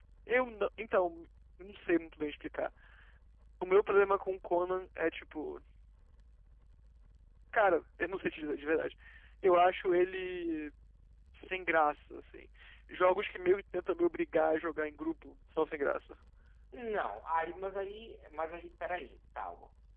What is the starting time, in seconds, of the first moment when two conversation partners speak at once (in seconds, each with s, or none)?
none